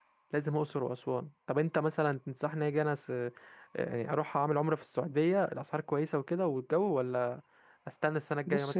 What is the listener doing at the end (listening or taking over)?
taking over